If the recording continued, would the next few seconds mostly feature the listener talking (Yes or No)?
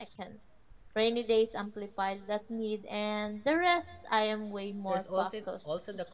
Yes